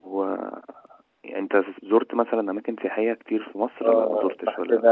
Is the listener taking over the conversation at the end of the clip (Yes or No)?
Yes